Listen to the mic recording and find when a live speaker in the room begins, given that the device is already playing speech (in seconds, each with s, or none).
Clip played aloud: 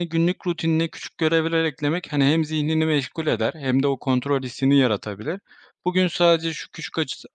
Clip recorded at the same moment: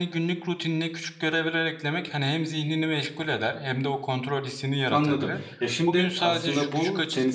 4.9 s